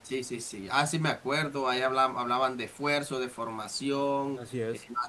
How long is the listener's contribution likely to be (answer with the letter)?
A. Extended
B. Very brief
B